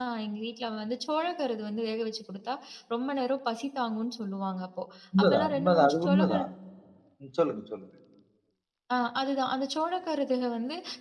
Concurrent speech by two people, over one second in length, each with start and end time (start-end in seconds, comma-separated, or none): 5.2-6.4